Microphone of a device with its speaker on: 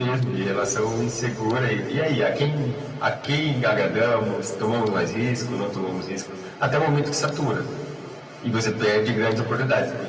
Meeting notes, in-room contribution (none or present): none